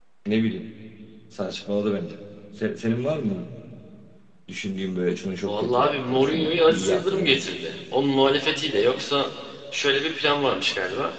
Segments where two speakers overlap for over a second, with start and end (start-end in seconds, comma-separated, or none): 5.5-7.5